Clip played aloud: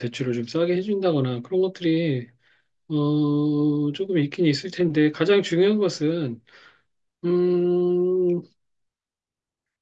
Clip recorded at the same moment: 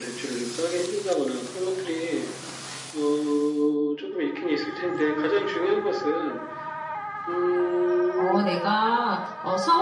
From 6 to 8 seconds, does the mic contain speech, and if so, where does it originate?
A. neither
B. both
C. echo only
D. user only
C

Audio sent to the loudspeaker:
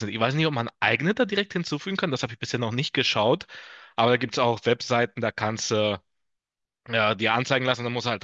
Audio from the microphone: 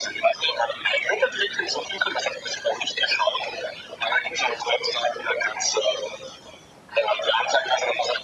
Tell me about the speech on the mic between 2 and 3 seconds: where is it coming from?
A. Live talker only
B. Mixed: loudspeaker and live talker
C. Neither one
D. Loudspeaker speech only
D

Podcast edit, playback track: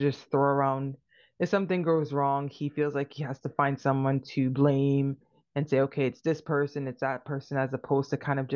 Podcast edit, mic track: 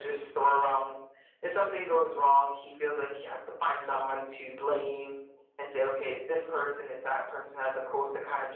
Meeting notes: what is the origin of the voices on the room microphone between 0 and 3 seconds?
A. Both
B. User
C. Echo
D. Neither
C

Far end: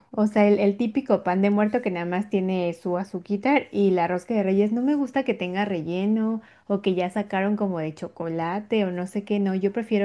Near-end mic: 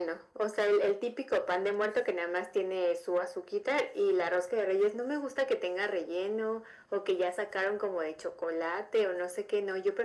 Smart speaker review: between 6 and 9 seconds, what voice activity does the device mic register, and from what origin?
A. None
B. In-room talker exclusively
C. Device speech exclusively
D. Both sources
C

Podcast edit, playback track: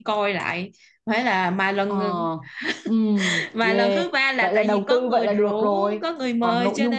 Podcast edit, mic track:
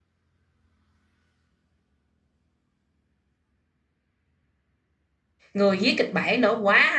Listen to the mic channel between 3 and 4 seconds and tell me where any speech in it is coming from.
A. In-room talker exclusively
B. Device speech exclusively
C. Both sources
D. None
D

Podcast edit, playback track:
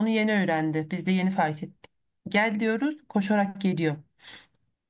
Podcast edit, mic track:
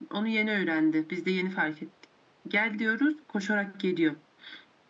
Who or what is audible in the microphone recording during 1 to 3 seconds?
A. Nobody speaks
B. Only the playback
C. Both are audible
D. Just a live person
B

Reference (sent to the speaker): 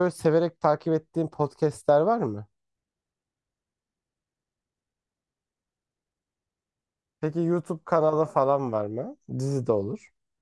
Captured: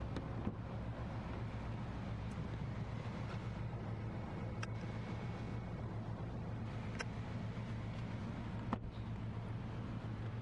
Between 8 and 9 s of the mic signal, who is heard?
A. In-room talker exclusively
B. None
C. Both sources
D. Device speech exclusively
B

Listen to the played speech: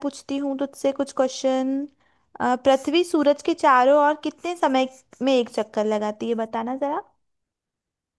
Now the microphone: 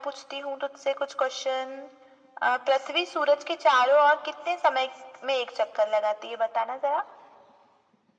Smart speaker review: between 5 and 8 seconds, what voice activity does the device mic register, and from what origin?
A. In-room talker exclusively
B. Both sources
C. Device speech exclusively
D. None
C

